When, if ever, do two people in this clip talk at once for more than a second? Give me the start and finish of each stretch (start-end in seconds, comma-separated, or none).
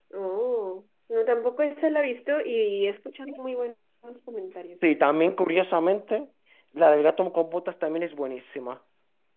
none